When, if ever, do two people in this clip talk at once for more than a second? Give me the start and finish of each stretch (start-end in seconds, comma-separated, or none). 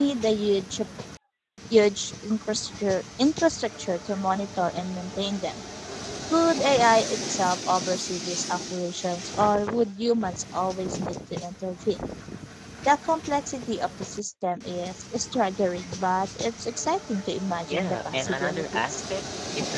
17.7-19.0